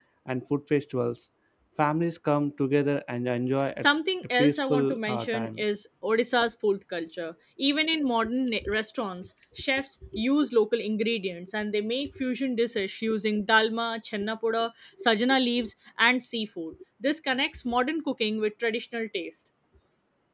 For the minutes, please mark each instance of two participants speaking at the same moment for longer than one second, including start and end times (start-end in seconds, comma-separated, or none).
4.4-5.6